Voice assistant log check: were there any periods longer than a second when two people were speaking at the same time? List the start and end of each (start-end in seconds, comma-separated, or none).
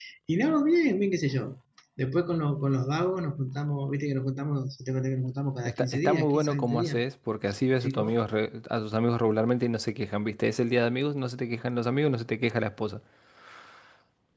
5.6-7.0